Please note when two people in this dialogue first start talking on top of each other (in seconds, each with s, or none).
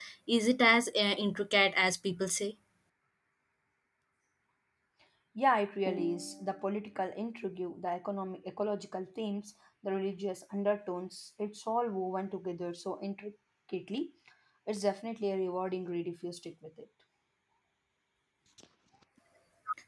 none